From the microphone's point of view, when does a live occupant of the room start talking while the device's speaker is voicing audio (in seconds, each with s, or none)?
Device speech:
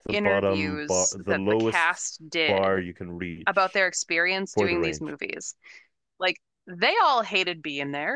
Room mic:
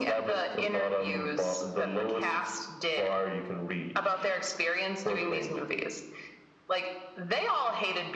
none